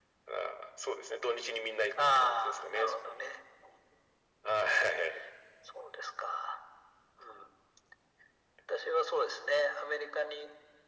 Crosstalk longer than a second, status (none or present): present